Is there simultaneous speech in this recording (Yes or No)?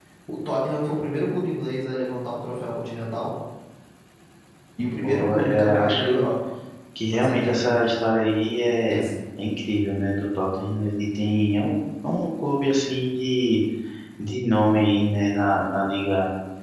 Yes